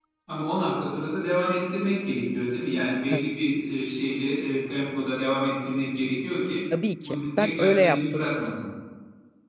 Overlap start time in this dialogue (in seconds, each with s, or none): 7.0 s